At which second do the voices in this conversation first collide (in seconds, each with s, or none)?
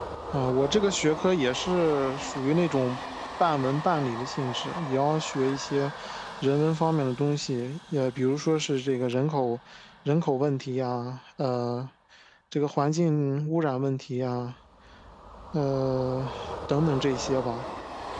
none